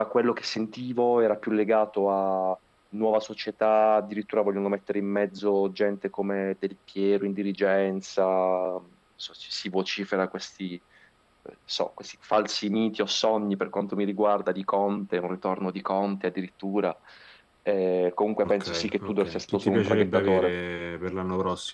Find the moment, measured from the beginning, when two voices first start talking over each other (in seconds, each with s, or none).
18.4 s